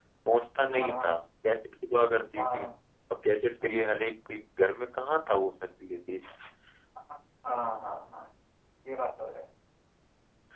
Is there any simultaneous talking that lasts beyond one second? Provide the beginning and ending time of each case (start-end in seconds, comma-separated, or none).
none